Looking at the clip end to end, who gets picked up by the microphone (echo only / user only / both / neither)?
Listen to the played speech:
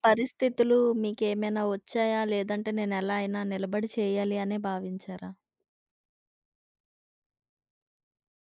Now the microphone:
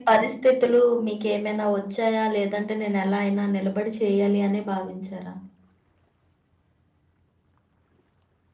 echo only